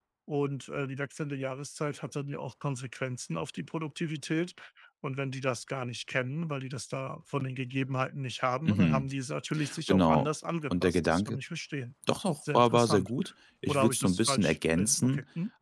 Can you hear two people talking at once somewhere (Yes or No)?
Yes